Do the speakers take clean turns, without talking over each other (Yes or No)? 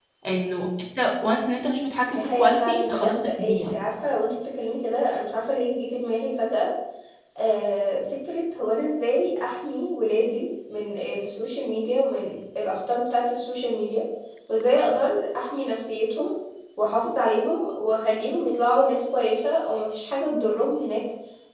No